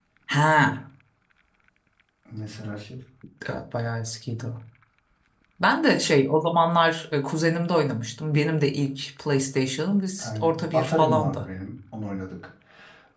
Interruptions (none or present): present